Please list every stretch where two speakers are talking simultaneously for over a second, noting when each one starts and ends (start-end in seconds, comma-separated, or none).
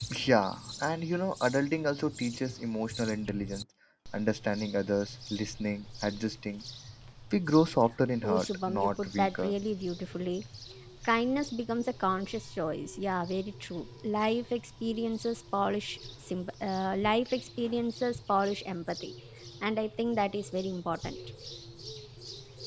8.2-9.5